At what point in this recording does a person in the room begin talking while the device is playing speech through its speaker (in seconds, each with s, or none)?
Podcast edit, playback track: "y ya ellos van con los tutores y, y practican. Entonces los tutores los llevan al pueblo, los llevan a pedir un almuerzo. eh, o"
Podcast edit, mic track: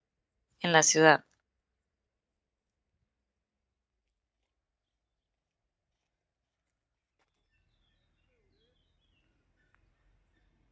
0.6 s